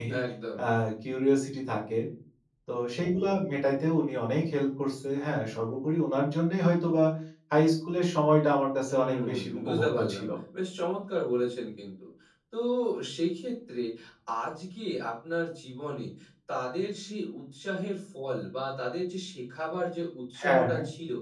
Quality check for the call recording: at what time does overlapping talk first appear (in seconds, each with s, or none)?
8.9 s